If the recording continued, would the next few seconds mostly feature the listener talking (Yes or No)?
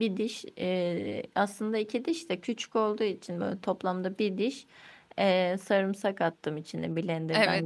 Yes